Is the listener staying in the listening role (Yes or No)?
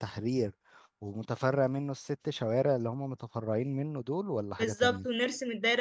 No